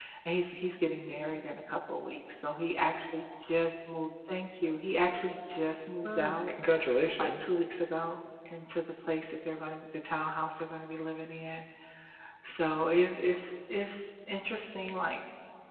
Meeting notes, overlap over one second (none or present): none